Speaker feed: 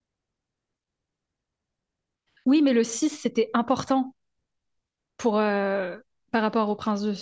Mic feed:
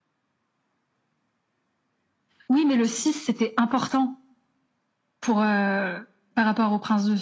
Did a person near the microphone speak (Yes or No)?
No